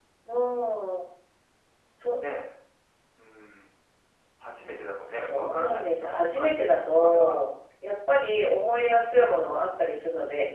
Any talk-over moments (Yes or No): Yes